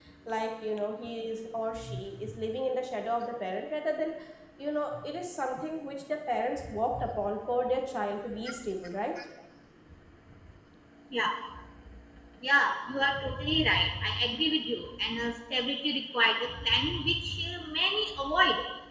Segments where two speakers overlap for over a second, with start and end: none

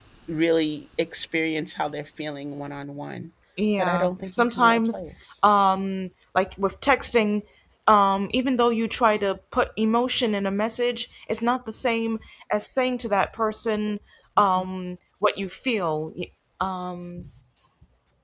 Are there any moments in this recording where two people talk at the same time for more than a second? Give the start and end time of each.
3.8-5.0

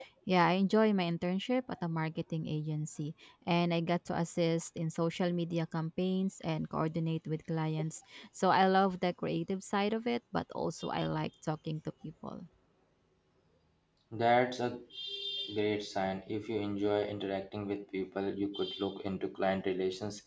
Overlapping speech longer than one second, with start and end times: none

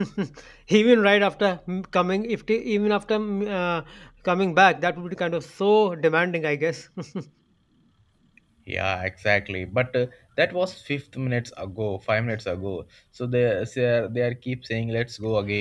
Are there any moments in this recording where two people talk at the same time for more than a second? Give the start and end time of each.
none

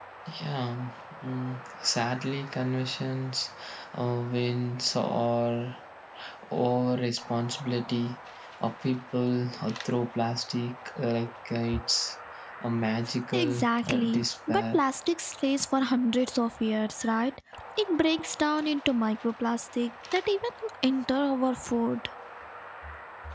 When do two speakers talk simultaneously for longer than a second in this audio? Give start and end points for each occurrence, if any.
13.3-14.8

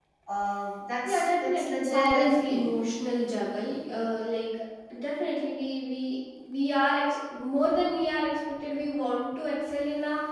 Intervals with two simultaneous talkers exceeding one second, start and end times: 1.0-2.7

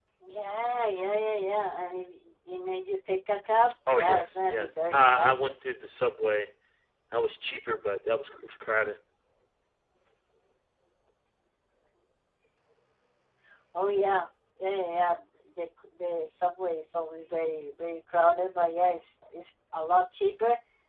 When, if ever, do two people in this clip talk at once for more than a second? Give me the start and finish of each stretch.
3.9-5.5

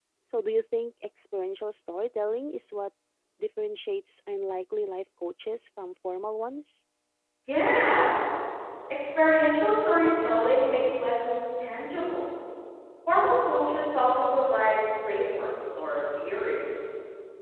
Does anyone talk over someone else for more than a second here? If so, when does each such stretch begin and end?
none

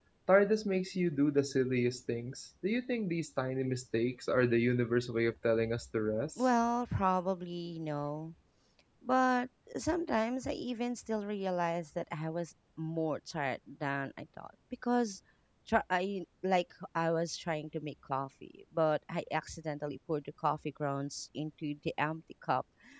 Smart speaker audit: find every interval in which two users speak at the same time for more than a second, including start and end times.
none

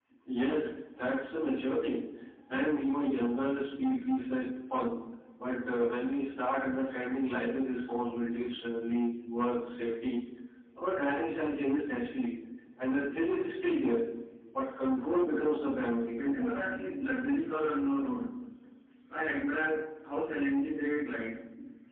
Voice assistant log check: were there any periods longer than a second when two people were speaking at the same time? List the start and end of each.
none

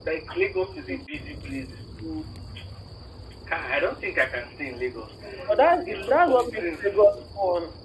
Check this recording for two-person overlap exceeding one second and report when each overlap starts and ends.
5.6-7.1

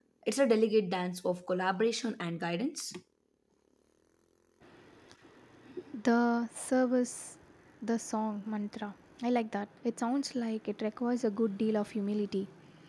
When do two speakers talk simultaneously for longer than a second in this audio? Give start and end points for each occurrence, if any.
none

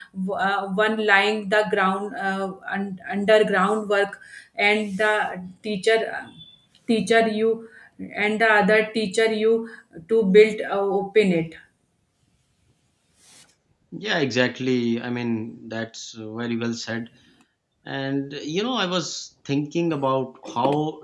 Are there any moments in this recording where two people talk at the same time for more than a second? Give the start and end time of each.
none

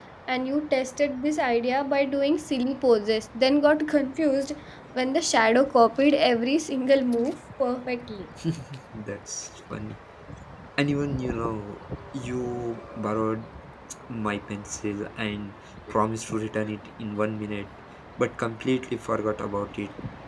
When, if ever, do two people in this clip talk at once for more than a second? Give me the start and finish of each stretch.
none

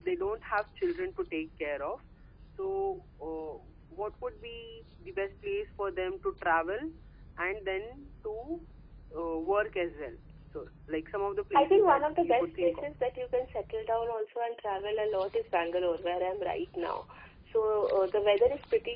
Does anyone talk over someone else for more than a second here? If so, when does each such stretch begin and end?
11.6-12.9

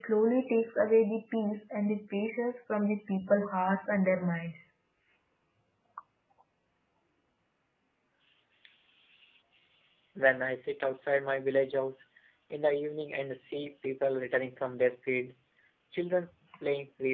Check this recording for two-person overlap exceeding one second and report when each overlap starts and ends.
none

